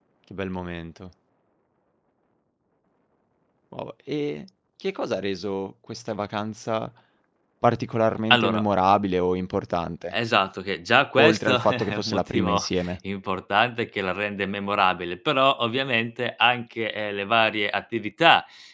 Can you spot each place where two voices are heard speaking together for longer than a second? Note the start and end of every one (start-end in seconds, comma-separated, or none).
11.2-12.9